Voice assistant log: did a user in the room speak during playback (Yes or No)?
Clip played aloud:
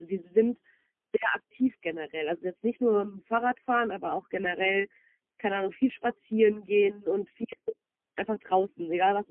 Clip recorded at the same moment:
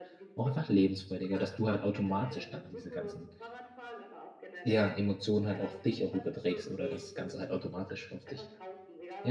Yes